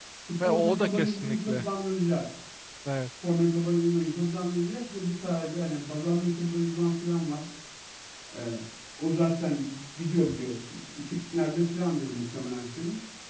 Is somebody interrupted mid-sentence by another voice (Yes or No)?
Yes